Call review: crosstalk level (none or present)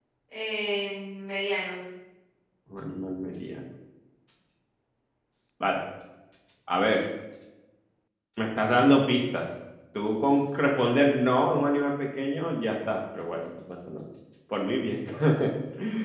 none